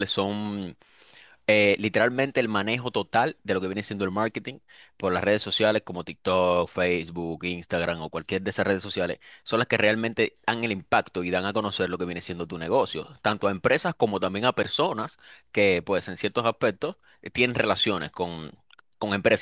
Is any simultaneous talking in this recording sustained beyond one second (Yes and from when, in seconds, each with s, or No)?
No